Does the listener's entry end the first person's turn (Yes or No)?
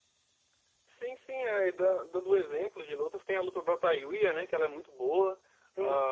Yes